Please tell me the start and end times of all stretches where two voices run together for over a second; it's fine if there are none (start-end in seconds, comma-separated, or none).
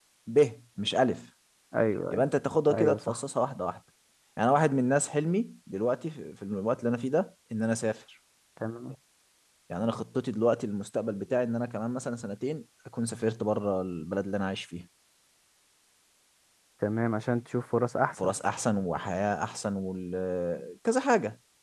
none